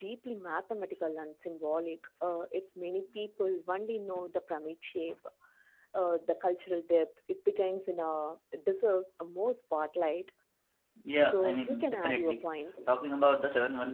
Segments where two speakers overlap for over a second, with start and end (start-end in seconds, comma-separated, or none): 11.2-12.4